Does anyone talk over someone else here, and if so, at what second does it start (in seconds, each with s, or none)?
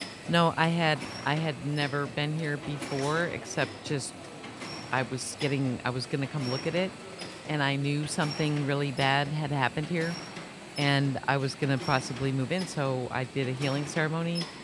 none